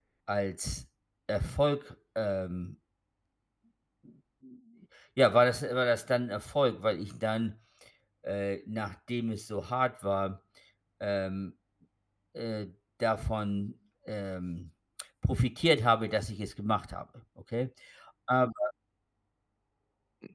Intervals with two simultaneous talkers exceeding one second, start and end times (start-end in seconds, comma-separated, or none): none